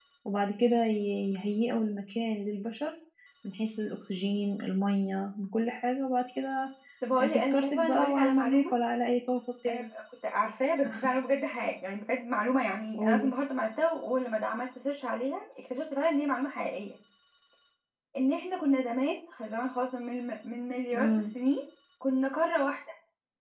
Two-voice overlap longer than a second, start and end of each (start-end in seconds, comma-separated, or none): 7.2-8.7